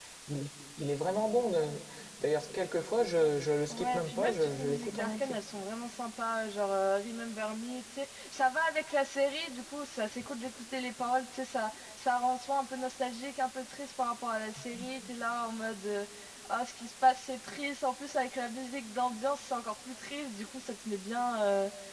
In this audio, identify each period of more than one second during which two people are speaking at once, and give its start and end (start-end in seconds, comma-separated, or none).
3.7-5.4